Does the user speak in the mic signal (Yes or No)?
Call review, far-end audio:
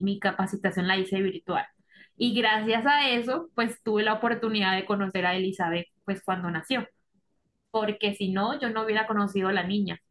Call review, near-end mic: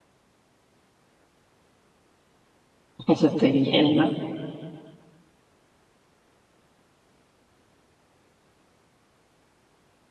Yes